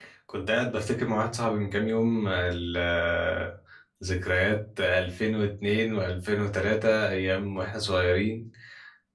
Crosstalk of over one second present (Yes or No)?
No